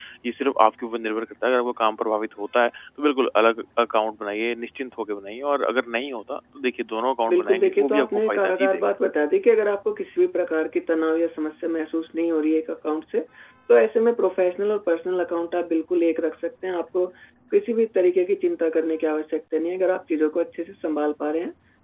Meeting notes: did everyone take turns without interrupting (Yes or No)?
No